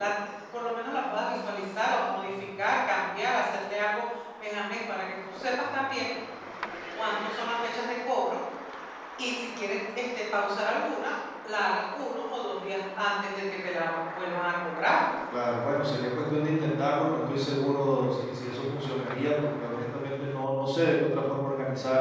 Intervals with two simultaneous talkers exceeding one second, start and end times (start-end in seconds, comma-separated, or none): none